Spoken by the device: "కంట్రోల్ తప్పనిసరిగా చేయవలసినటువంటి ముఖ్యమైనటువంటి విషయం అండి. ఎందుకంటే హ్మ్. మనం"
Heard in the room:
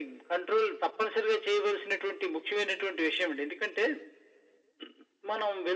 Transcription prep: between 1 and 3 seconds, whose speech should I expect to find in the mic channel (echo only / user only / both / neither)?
echo only